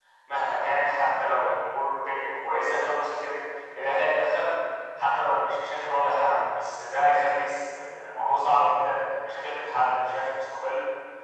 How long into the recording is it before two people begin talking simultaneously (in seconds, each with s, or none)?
none